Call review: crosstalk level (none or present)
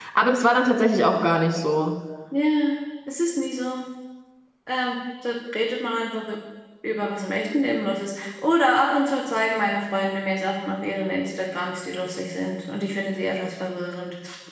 none